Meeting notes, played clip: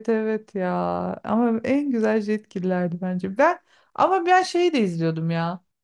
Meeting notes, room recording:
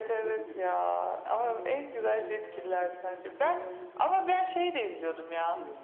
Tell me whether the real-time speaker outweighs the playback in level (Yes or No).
No